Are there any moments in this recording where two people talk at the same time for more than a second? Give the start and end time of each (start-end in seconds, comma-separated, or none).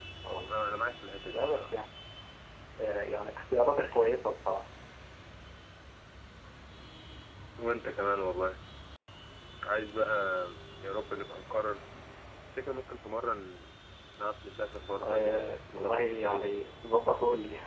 15.0-16.6